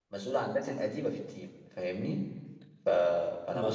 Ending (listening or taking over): listening